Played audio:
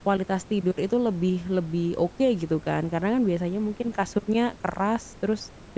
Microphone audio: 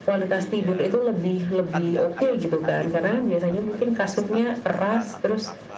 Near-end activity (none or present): present